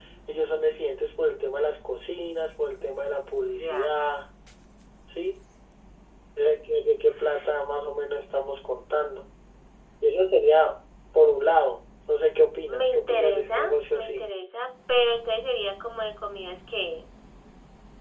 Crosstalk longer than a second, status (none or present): present